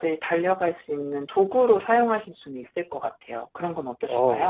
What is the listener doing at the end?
taking over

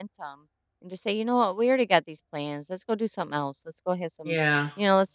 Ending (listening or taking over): listening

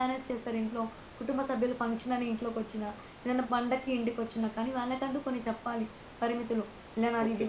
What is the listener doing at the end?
listening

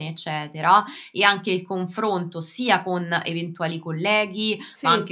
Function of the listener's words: listening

